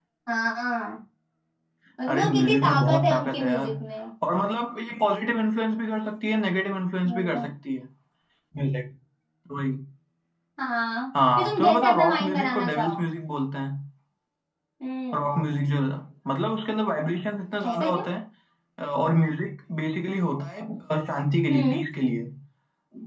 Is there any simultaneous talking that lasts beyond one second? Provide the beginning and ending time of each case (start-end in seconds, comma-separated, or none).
2.1-3.7, 11.4-13.1